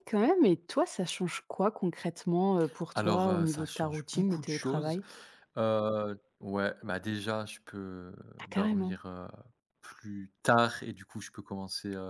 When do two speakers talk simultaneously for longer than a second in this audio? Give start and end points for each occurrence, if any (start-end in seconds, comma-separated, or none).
3.0-5.0